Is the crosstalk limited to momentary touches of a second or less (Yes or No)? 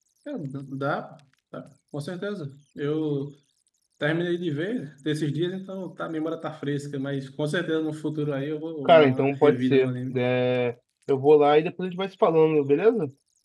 No